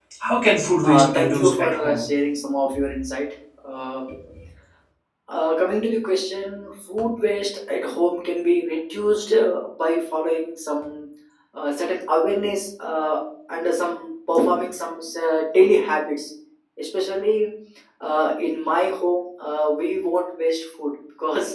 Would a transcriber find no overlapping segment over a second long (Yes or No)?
No